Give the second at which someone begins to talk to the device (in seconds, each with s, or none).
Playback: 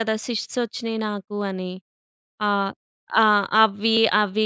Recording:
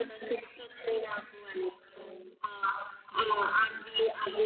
none